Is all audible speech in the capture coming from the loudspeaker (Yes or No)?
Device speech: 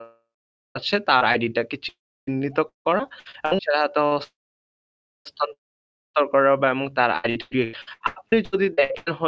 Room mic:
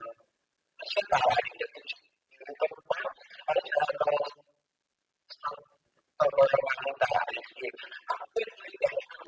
Yes